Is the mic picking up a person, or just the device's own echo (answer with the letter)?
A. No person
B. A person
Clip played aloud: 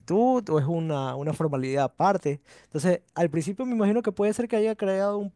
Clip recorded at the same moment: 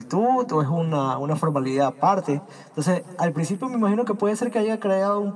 A